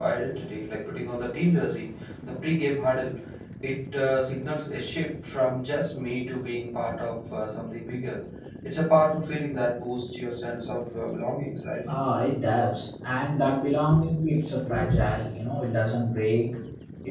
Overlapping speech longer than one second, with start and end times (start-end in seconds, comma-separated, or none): none